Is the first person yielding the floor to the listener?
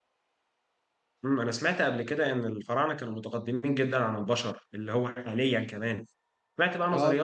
No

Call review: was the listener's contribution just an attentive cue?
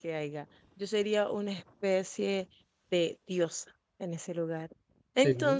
Yes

